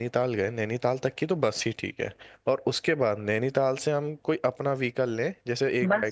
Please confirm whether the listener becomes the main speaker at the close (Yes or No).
Yes